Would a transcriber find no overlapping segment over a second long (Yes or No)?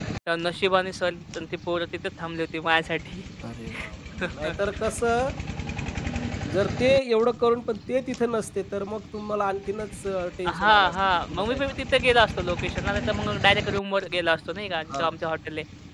No